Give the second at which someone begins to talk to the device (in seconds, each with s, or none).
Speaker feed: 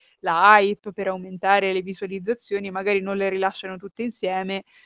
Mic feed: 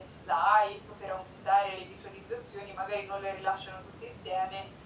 none